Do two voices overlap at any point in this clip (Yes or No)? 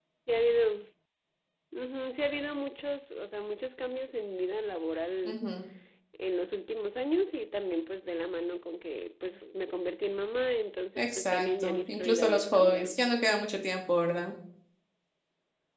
Yes